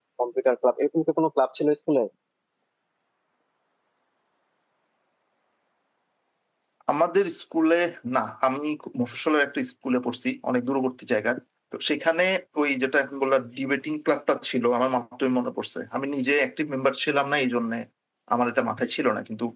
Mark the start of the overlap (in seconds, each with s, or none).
none